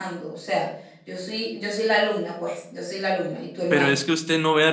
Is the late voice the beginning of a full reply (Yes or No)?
Yes